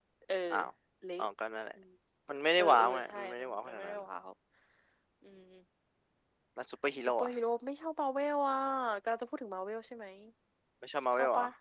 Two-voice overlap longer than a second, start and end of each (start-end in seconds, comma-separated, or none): 2.6-4.0